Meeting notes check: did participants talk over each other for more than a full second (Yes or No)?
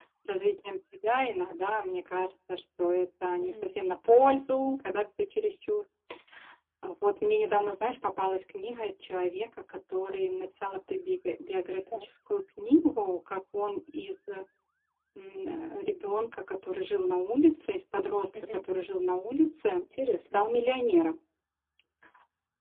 No